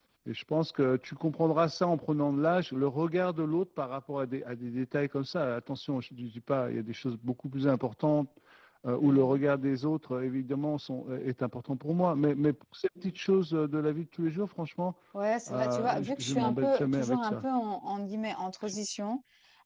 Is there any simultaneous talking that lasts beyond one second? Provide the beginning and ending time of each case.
15.5-17.4

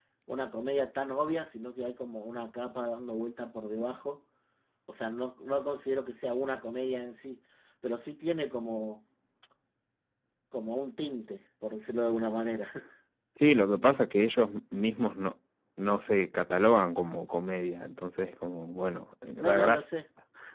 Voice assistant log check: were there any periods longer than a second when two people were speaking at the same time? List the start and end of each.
none

